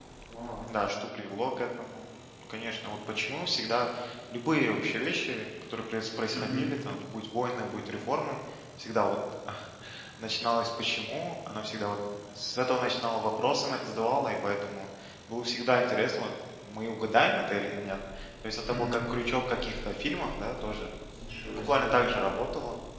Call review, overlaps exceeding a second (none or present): none